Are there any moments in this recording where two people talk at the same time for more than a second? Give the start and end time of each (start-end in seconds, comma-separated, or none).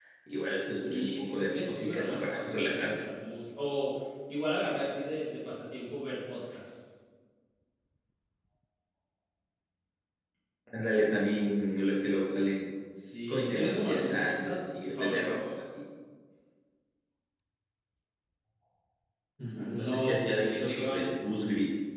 0.7-3.0, 13.3-15.4, 19.8-21.1